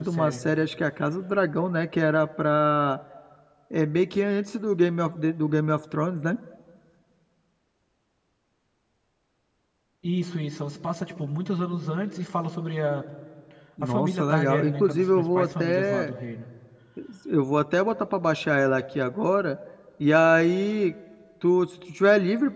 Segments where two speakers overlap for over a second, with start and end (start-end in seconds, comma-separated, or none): 13.8-16.1